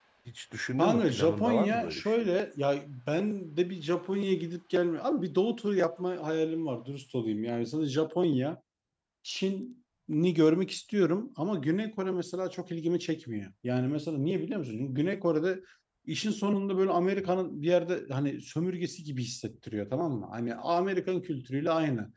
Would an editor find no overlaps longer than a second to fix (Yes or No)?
No